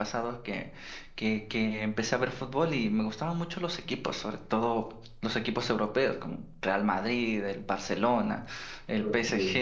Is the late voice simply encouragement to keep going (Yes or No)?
Yes